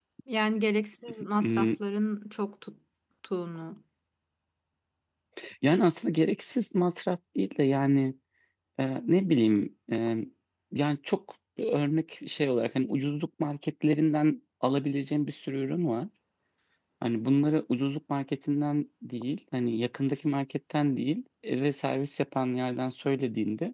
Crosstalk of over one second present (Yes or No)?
No